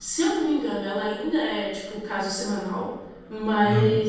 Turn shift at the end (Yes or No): No